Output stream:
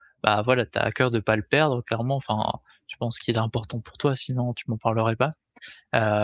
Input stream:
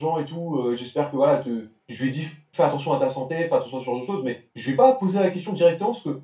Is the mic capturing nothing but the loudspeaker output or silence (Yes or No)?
No